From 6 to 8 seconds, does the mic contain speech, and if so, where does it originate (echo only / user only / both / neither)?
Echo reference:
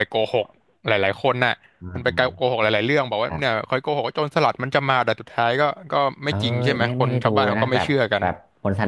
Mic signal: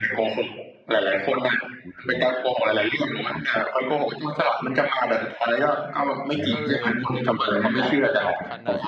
both